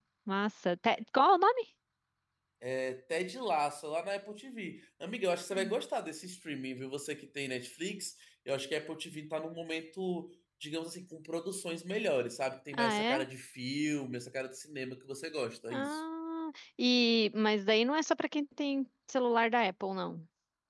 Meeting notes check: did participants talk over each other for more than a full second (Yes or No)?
No